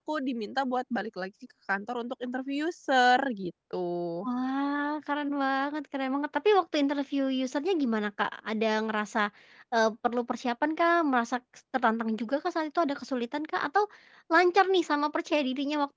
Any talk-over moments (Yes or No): No